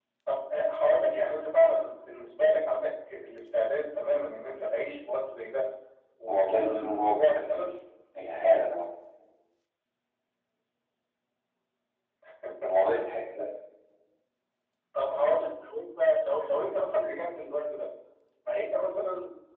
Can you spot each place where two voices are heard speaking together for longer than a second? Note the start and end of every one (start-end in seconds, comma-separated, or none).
6.3-7.7